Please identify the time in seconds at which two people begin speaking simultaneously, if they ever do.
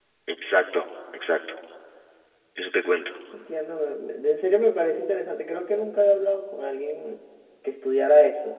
none

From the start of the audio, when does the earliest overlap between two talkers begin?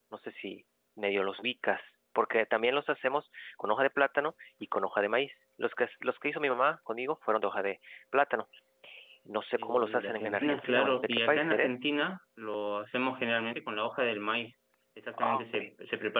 9.6 s

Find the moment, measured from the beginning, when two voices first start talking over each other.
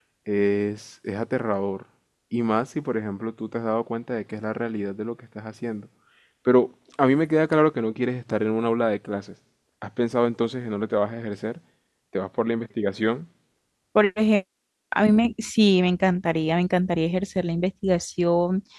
none

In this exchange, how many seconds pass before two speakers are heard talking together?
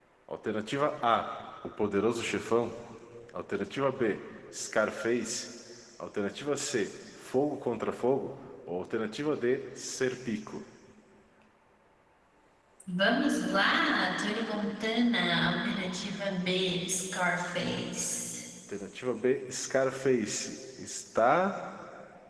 none

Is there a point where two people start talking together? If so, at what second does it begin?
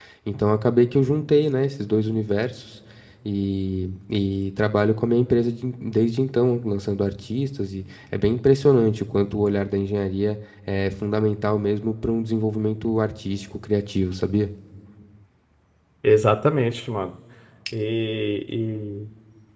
none

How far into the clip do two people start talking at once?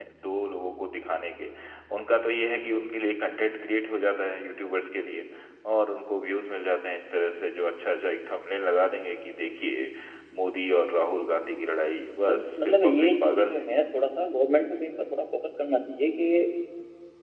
12.2 s

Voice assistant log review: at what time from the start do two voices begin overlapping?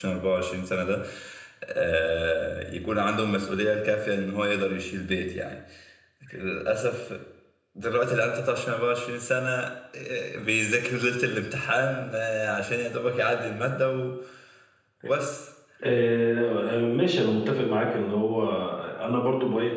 none

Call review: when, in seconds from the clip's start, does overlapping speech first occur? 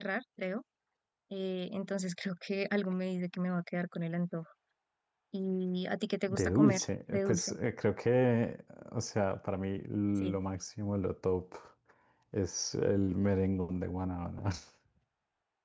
6.3 s

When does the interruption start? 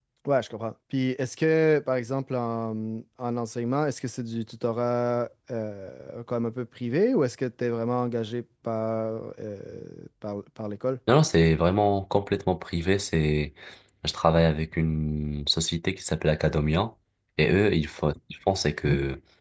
none

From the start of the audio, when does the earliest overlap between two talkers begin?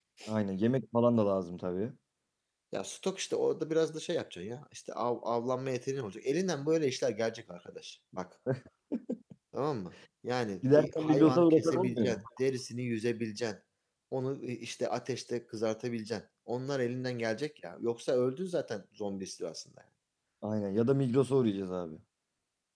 10.6 s

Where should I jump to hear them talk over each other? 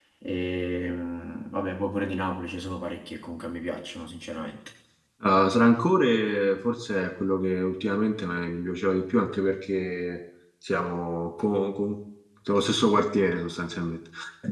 none

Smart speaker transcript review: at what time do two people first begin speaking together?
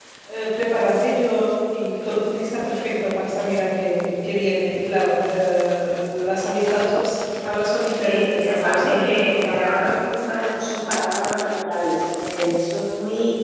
8.0 s

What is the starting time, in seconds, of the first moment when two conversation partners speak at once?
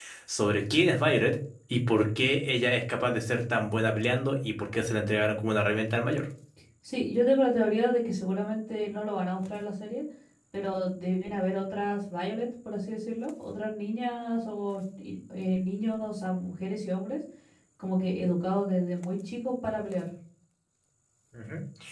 none

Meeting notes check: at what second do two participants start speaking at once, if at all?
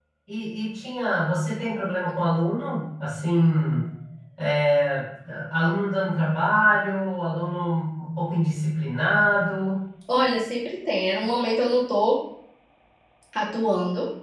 none

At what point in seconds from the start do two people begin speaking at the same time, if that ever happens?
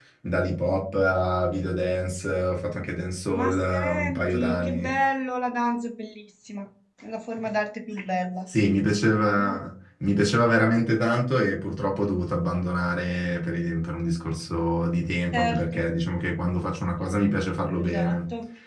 3.3 s

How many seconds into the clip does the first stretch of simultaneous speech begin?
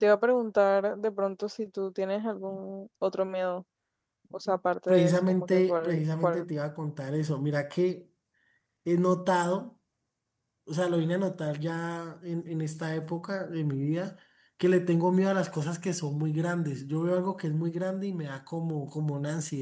4.9 s

